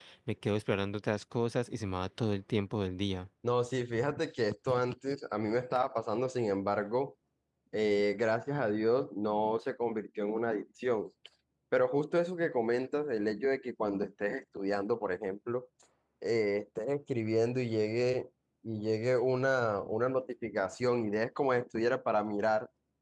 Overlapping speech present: No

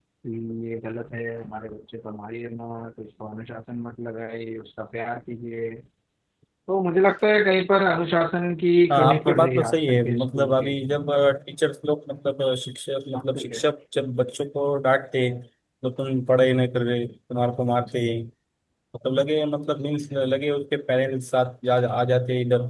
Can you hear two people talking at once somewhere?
Yes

